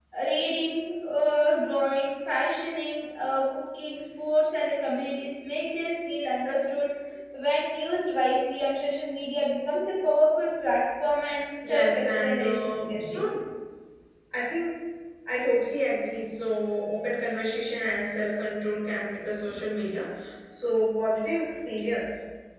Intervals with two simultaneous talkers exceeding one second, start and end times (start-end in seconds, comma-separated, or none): 11.6-13.2